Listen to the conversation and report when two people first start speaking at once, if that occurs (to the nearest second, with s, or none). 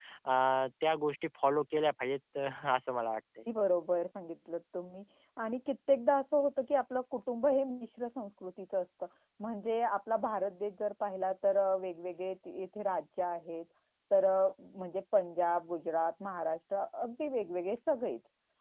none